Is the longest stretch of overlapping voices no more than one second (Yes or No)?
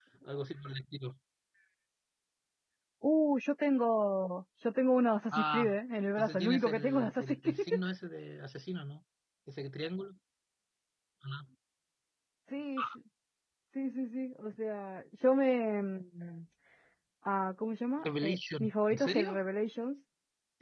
No